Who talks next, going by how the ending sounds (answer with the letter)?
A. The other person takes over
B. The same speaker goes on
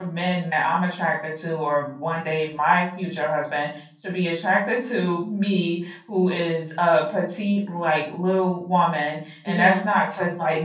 B